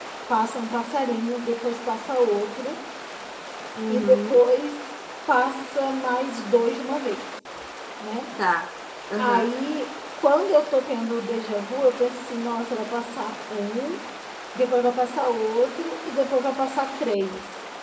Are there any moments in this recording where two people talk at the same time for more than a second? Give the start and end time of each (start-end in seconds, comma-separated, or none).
none